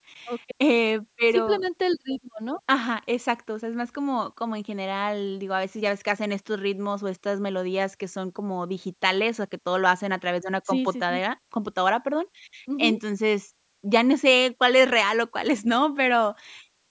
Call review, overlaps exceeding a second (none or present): none